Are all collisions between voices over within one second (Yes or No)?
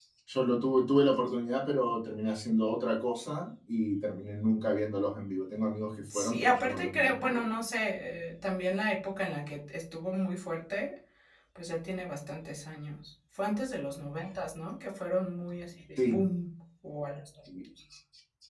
No